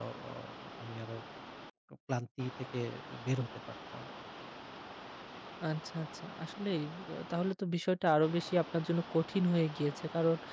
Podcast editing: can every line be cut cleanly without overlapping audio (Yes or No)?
Yes